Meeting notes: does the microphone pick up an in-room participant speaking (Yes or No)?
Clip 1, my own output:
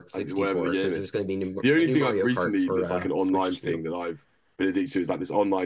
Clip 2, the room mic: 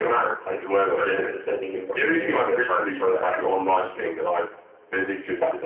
No